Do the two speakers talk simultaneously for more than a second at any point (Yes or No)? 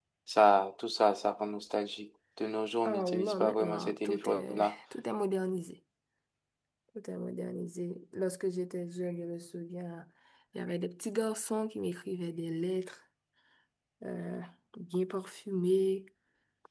Yes